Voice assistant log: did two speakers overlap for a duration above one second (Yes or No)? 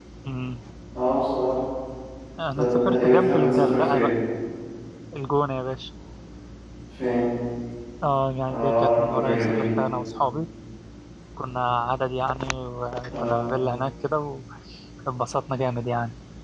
Yes